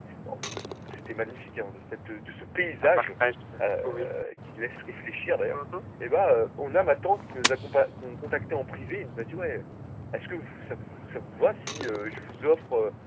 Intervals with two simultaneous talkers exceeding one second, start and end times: none

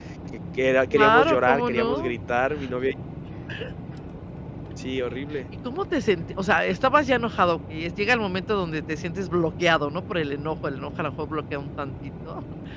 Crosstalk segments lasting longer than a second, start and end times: 0.9-2.1

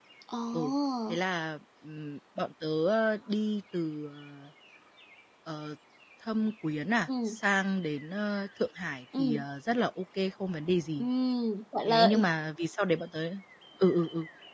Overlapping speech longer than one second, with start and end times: none

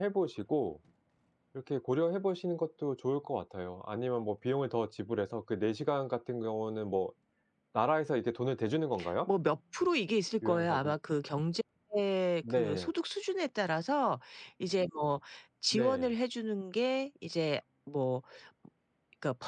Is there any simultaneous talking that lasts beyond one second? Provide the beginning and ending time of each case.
none

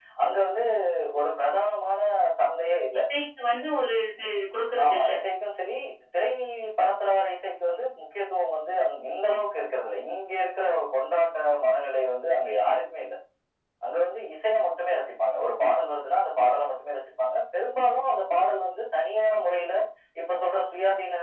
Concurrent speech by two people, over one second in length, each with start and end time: none

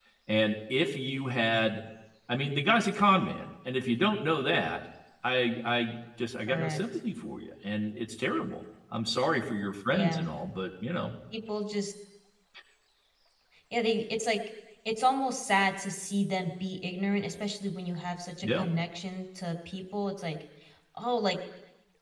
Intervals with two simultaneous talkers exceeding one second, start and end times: none

